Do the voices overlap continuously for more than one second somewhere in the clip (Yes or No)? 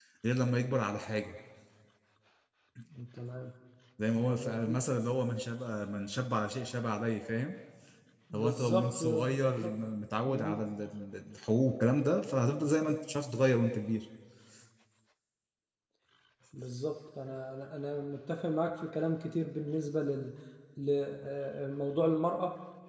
Yes